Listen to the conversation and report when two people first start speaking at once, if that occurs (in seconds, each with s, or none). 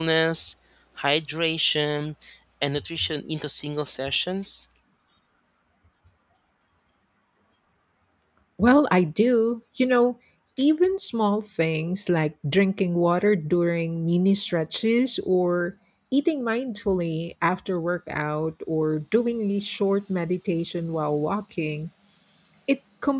none